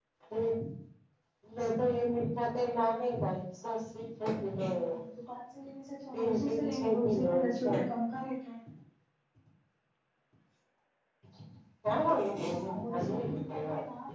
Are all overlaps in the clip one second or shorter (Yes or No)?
No